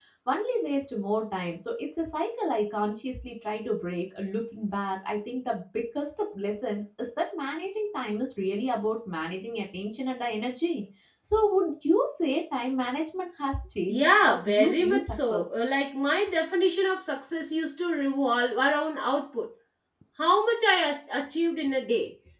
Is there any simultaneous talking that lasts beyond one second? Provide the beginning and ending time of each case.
13.9-15.5

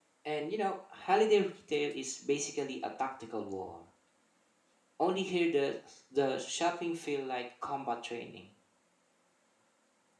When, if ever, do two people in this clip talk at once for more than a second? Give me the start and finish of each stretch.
none

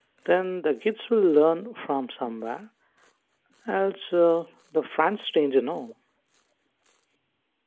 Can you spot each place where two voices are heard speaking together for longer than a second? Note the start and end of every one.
none

